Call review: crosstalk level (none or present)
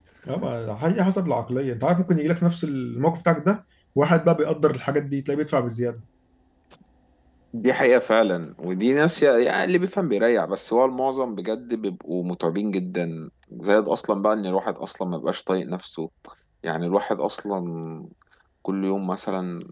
none